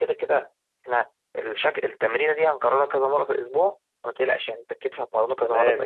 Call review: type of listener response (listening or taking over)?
taking over